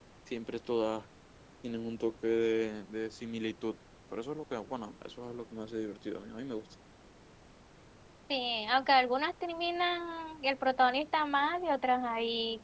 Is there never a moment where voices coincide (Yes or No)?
Yes